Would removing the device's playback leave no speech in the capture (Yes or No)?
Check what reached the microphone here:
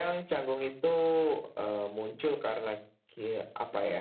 Yes